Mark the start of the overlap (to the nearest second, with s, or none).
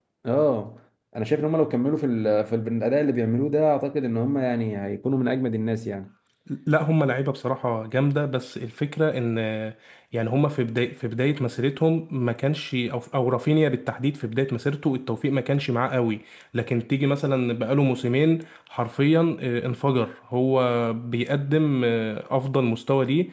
none